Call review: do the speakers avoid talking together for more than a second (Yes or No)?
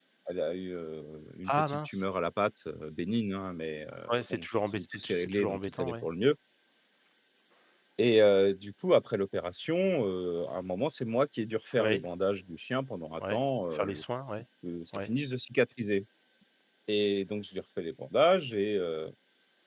No